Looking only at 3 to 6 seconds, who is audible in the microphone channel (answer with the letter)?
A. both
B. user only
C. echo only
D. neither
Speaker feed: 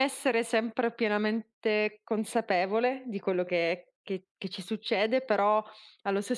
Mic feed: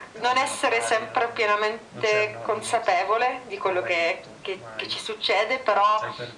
A